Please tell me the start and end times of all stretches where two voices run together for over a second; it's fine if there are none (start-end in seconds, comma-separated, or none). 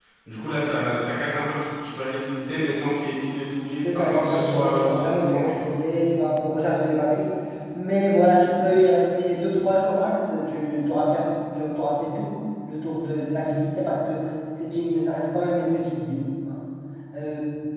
3.8-5.7